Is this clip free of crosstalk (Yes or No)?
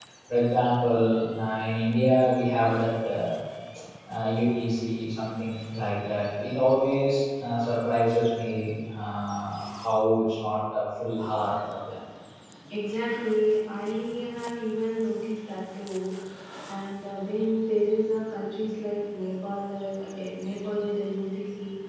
Yes